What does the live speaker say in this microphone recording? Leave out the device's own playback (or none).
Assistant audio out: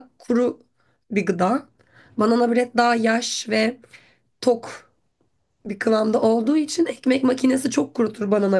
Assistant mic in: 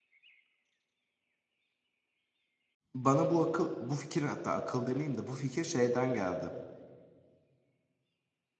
Bana bu akıl, bu fikir hatta akıl demeyeyim de bu fikir şeyden geldi.